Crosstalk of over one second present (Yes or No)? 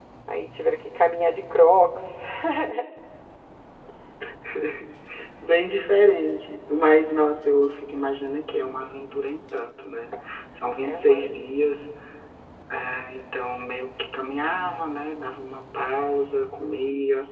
No